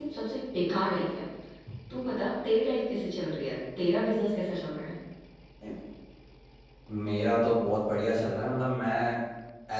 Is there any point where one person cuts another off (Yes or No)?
No